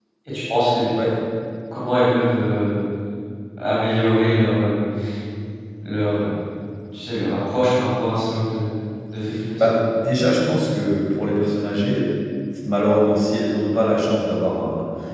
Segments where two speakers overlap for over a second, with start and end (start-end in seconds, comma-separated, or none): none